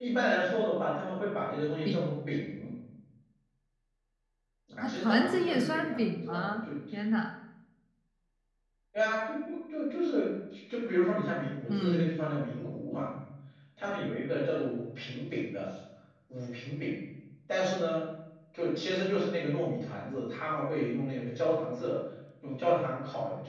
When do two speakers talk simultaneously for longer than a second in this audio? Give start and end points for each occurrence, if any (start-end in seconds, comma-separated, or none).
4.8-6.5